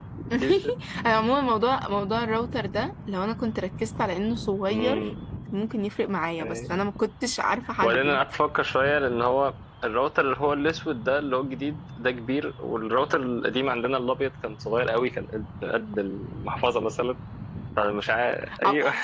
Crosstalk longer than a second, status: none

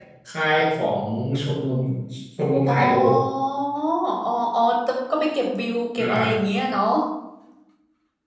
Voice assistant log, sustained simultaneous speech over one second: none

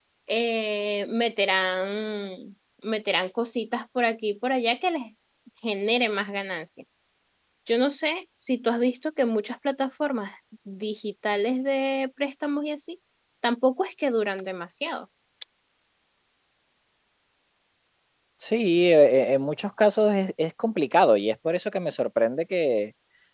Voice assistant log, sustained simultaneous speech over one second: none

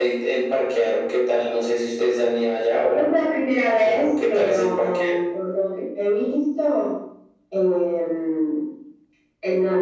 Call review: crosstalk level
present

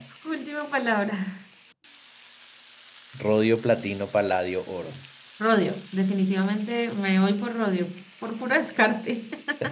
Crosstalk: none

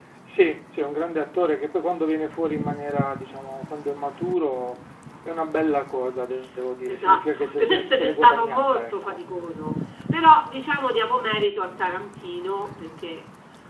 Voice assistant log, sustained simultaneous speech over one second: present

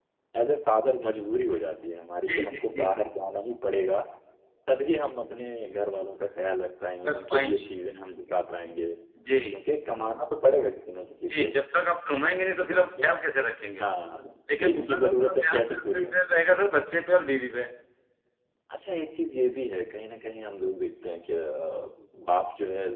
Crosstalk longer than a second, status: present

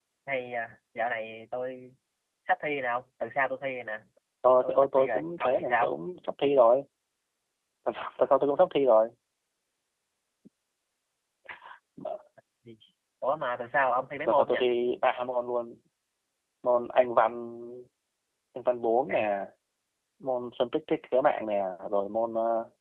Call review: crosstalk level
present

